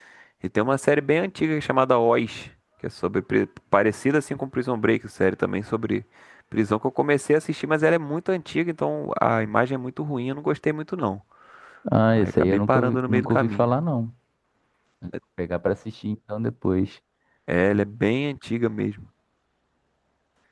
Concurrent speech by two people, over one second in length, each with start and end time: 12.1-13.7

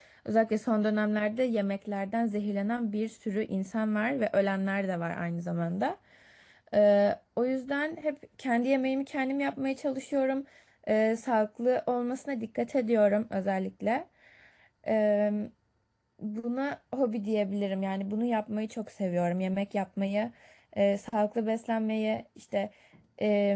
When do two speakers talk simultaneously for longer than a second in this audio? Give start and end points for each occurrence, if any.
none

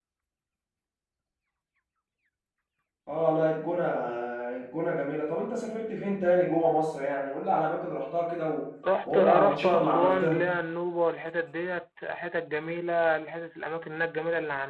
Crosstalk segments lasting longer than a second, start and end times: 9.1-10.4

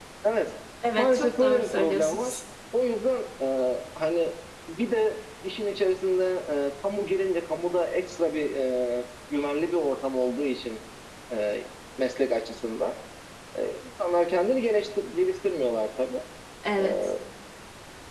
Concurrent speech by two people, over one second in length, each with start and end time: 1.0-2.3

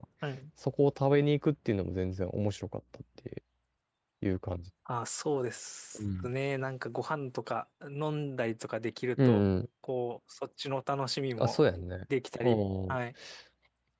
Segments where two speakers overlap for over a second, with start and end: none

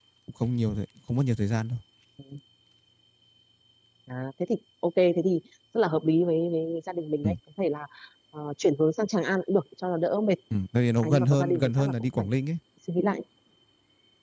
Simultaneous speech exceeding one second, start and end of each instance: 11.0-12.3

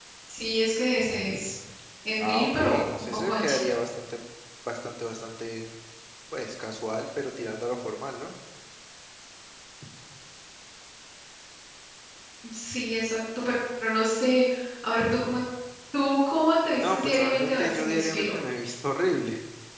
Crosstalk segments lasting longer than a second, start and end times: 2.2-3.8, 16.8-18.3

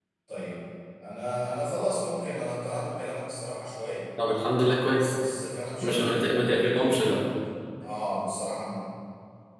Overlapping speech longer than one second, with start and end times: 5.8-7.2

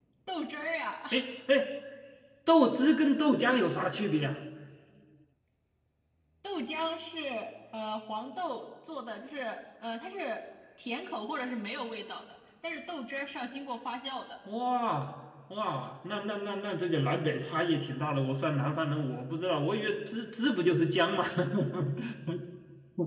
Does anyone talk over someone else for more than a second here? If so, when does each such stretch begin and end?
none

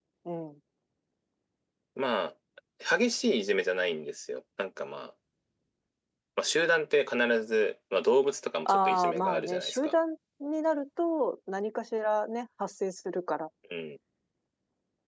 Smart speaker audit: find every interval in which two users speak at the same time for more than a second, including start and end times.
8.7-9.9

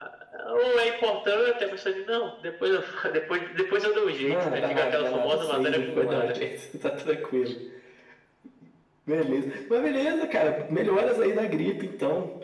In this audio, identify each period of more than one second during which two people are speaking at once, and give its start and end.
4.2-6.3

